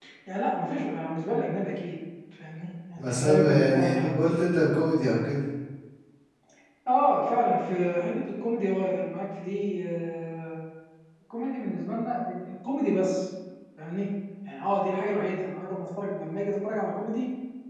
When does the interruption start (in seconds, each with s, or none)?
3.0 s